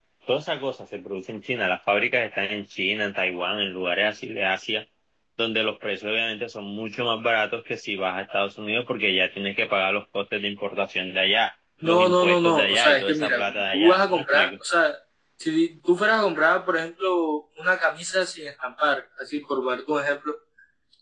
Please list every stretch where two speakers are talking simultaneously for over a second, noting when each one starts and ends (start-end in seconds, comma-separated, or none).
11.8-14.5